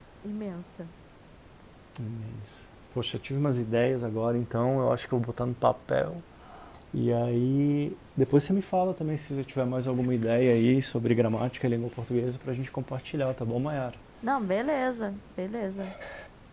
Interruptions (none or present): none